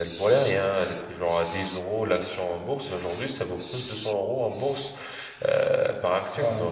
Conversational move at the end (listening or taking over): listening